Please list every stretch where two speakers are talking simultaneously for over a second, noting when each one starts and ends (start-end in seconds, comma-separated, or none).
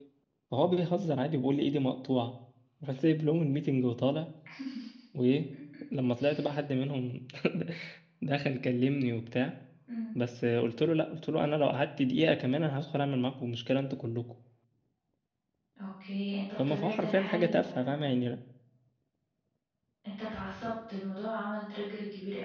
16.6-18.0